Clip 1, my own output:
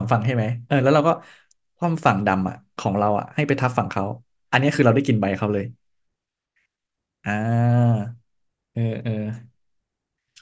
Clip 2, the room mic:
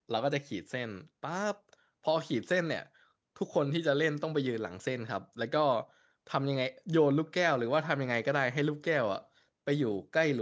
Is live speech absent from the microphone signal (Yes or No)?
No